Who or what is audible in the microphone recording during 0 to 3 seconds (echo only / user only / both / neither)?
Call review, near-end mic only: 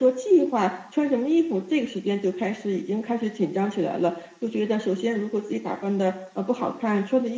echo only